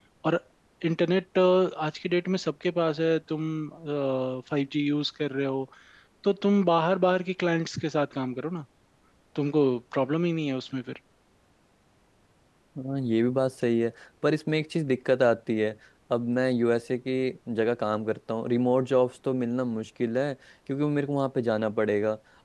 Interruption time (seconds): none

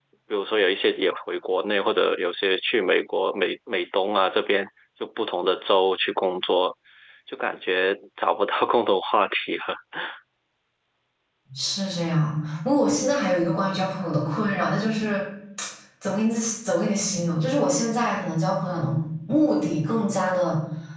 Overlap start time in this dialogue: none

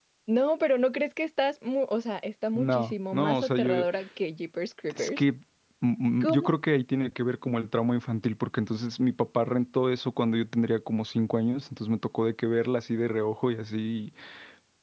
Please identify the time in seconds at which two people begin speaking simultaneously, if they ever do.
2.6 s

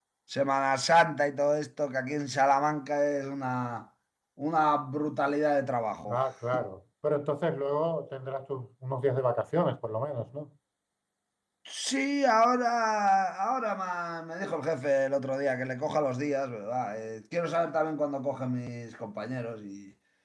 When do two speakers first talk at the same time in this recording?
none

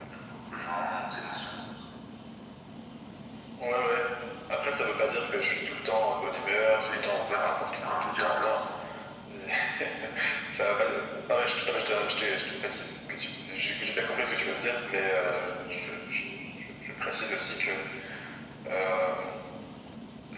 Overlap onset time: 6.9 s

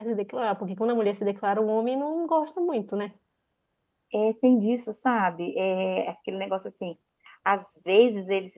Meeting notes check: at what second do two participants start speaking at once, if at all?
none

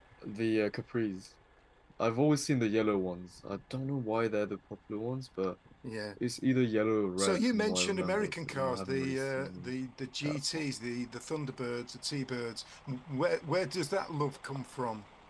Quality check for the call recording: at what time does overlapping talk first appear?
7.2 s

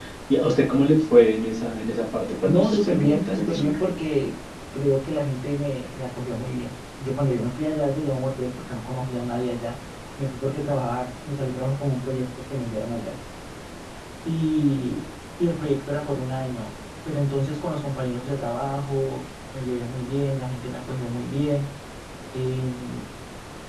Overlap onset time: 2.4 s

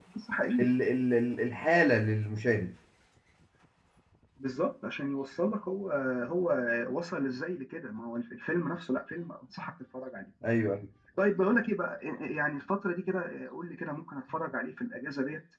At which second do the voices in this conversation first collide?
none

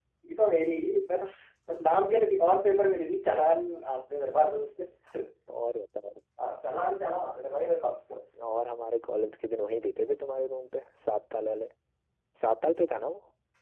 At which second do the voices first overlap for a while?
none

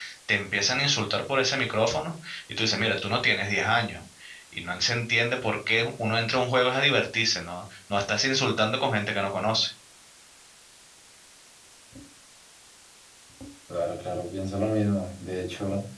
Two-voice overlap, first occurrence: none

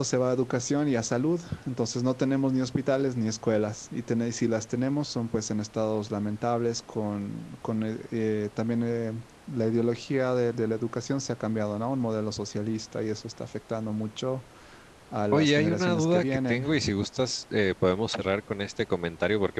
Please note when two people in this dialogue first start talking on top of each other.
15.3 s

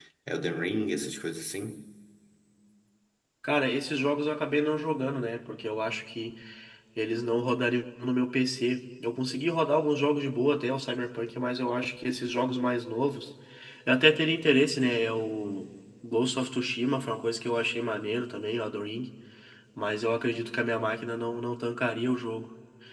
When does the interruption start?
none

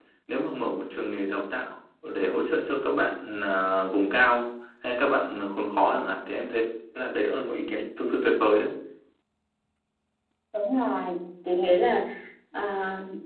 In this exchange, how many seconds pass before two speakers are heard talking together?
none

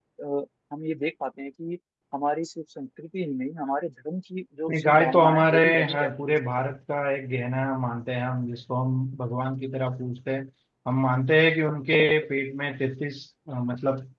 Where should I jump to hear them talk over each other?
4.7 s

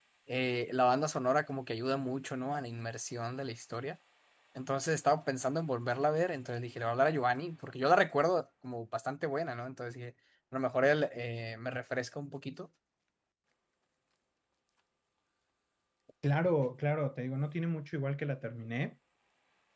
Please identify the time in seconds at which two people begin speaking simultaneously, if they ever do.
none

